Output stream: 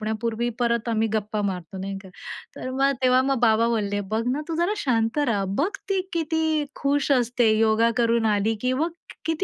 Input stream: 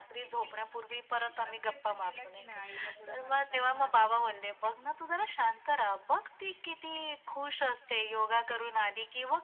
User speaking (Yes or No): Yes